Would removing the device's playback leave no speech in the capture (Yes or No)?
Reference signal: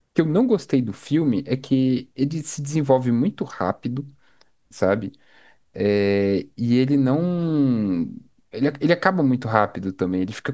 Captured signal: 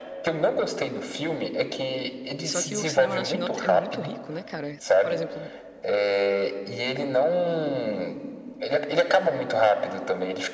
No